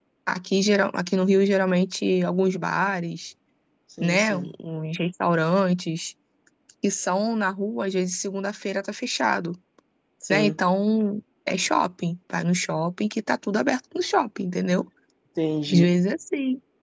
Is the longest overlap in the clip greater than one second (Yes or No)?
No